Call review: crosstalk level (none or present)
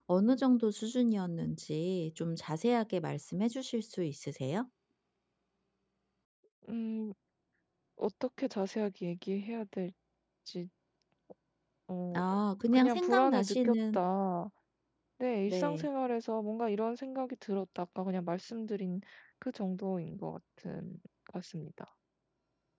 present